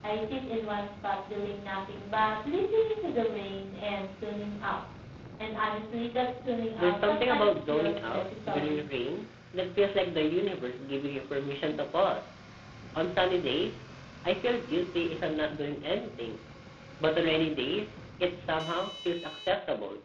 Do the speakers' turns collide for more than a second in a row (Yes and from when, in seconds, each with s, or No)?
Yes, from 6.8 s